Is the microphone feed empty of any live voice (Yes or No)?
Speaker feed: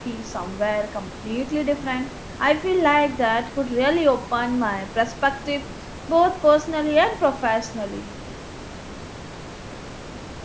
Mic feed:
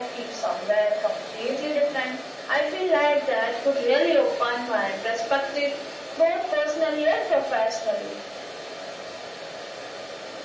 Yes